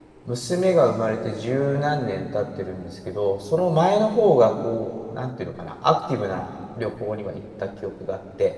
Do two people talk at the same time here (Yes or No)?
No